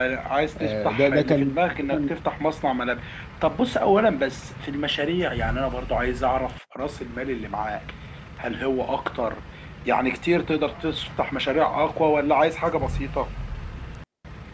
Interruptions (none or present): present